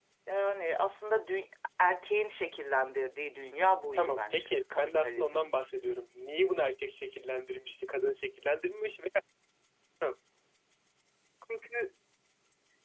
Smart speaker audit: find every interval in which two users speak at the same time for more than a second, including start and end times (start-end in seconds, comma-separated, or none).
3.9-5.4